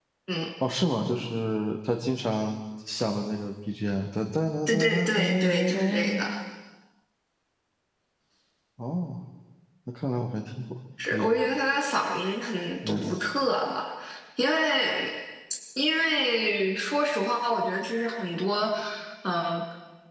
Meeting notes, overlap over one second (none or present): present